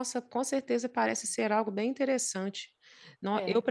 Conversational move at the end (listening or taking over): listening